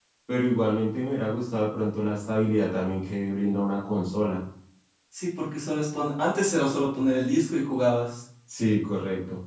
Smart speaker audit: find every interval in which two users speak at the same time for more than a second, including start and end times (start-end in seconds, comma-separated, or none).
none